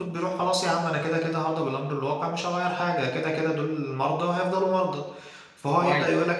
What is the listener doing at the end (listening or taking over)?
listening